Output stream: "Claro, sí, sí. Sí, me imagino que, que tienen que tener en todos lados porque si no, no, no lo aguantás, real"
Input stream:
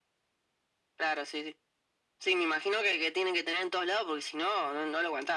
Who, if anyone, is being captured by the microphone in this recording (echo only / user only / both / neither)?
echo only